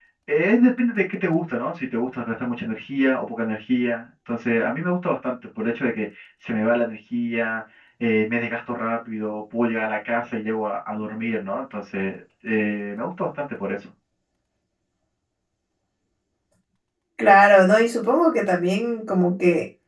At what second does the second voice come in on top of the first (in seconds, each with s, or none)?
none